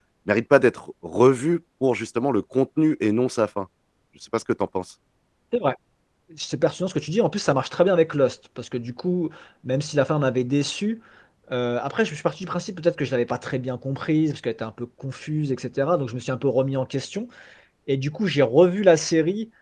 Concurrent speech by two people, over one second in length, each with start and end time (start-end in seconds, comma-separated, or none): none